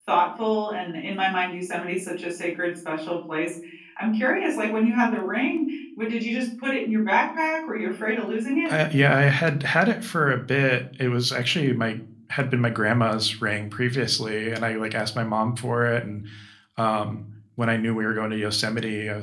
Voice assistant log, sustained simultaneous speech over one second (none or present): none